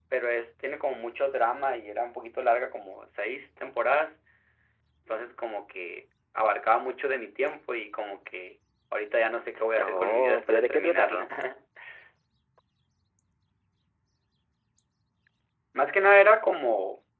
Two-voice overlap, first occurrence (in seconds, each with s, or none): 9.8 s